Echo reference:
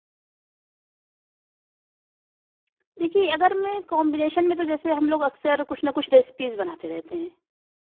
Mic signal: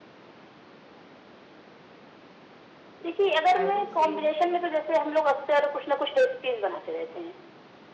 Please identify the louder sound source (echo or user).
echo